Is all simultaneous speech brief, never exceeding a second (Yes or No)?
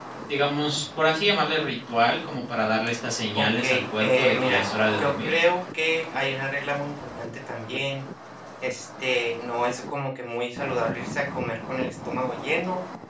No